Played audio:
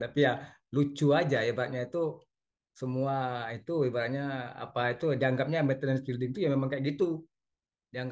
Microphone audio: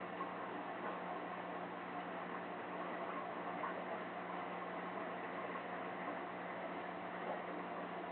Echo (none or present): none